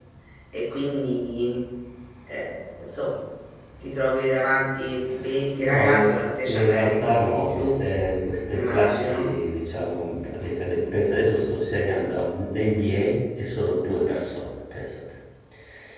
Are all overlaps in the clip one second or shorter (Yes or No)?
No